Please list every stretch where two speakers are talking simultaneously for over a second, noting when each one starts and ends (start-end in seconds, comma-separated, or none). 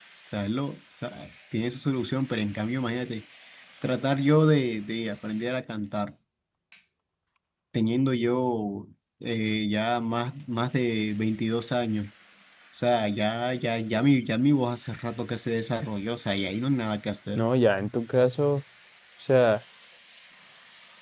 none